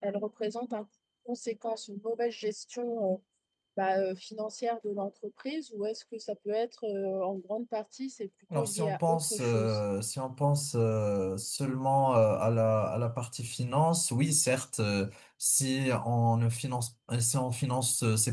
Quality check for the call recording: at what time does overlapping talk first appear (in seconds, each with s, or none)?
8.5 s